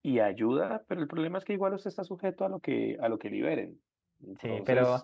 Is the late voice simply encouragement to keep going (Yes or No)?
No